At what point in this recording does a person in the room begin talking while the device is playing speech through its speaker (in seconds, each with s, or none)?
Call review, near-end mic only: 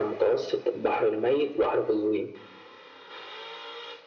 none